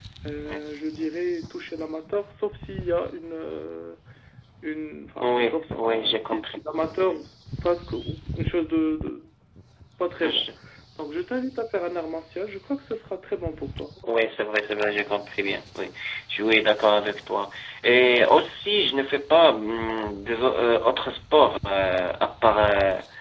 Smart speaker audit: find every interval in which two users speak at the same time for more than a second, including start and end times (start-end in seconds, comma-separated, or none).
5.2-6.6